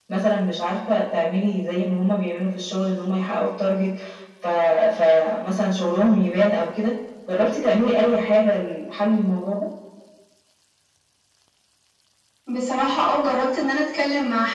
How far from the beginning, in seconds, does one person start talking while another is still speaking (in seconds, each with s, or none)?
none